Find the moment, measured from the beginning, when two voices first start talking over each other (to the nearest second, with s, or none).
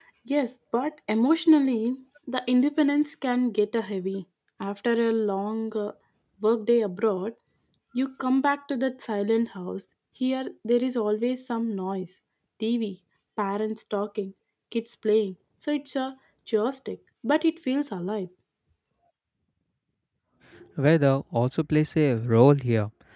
none